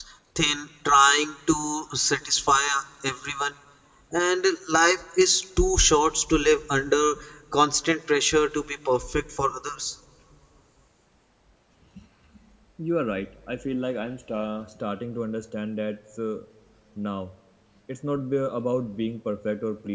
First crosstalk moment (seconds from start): none

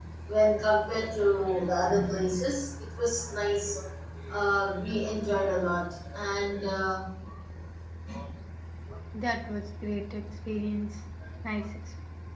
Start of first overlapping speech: none

